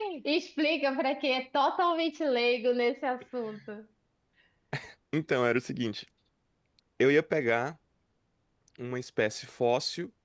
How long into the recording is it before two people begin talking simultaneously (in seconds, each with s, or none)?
none